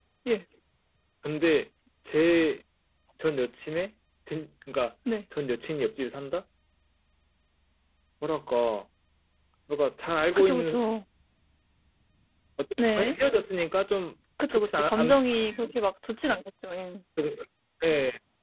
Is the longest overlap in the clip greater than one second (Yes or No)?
Yes